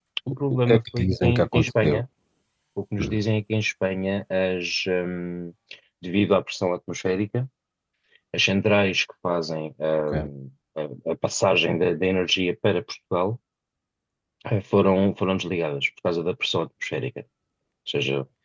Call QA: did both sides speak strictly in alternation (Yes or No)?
No